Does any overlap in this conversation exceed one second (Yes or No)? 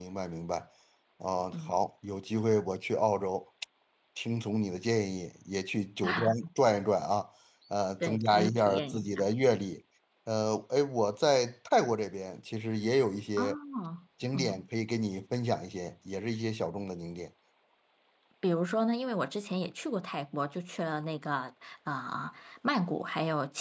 Yes